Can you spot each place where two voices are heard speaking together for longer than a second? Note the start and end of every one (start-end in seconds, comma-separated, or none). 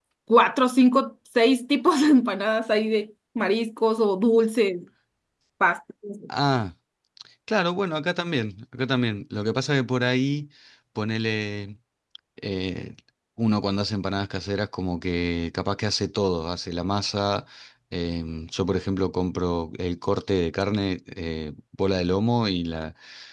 none